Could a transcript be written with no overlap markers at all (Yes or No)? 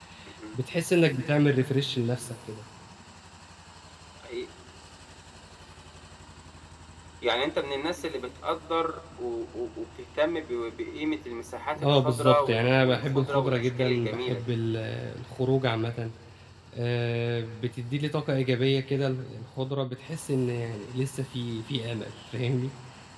No